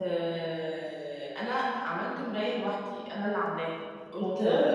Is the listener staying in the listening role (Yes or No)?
Yes